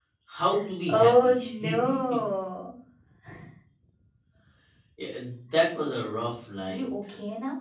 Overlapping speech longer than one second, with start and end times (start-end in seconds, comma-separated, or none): 0.9-2.2